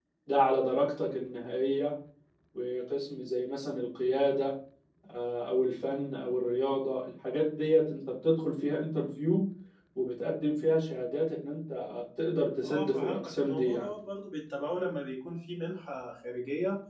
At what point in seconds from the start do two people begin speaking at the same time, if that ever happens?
12.6 s

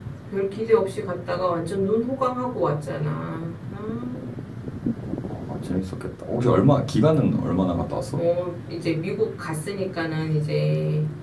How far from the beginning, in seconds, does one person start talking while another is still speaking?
none

